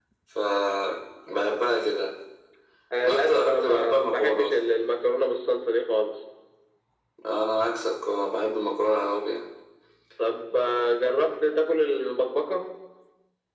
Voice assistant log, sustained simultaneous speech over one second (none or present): present